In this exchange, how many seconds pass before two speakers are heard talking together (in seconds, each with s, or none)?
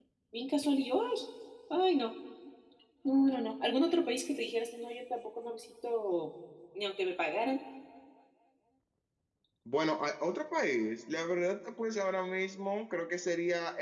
none